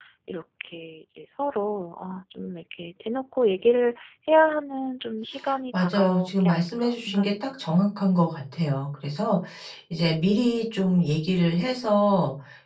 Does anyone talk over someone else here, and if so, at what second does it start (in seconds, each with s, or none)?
5.7 s